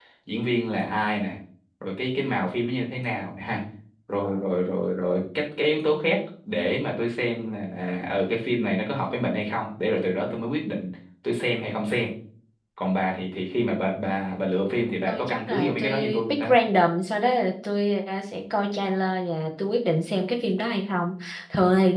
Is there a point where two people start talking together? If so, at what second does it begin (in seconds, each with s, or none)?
15.1 s